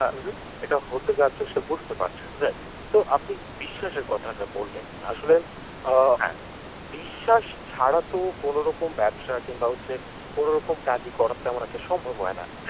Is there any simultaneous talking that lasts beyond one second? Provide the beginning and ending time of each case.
none

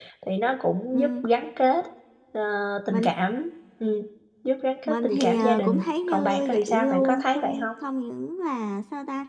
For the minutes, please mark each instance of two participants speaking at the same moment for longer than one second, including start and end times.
4.8-7.7

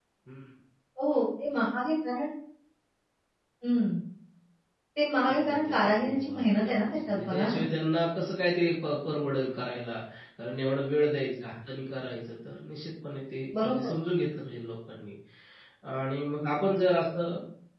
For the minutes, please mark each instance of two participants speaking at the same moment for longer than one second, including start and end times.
5.2-7.6

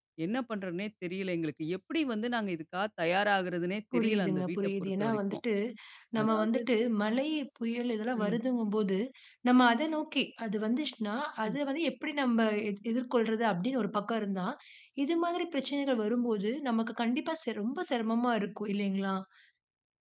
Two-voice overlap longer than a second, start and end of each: 3.9-5.4

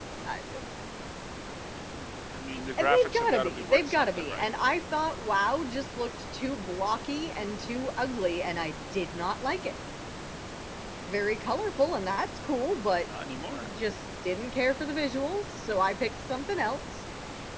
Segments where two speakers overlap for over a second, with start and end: 2.8-4.5

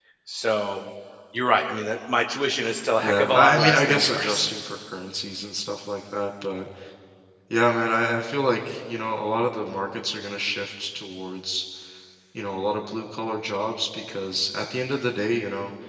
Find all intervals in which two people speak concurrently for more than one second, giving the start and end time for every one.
3.0-4.5

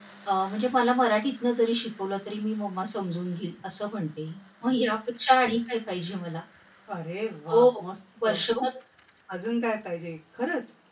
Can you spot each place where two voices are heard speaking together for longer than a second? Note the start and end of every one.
none

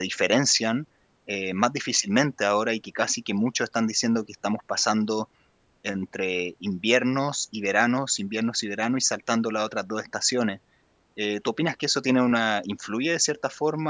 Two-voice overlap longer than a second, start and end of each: none

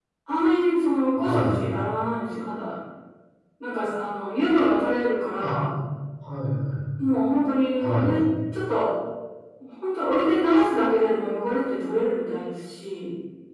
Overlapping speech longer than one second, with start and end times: none

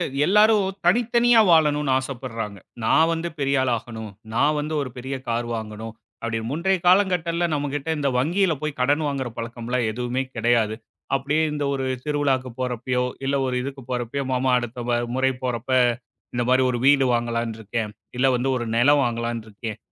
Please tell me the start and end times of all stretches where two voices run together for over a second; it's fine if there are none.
none

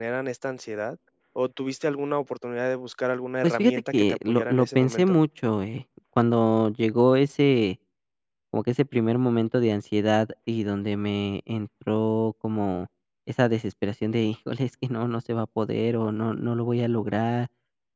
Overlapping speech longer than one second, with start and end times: 3.4-5.2

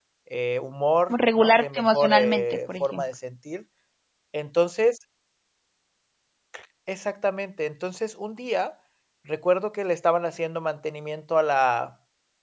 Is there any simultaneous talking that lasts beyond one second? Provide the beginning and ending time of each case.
1.4-3.0

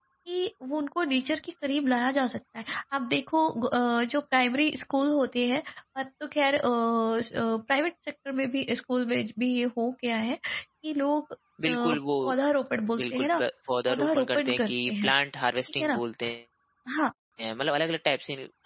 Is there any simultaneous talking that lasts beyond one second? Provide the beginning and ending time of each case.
13.9-15.1

